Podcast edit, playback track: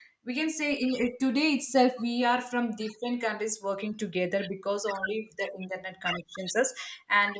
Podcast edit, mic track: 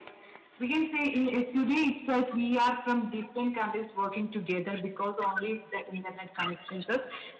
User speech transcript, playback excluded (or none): none